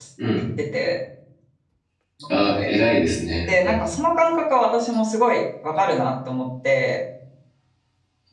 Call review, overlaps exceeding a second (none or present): none